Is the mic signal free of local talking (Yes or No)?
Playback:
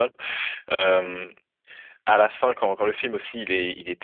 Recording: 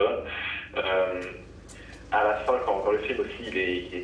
Yes